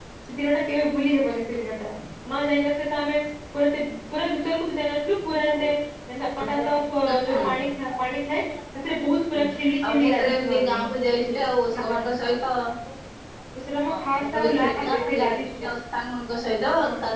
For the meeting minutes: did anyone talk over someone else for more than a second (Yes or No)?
Yes